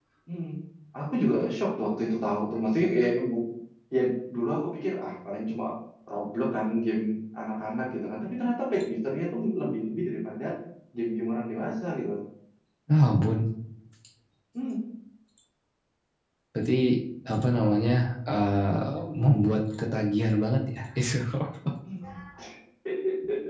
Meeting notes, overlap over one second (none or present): none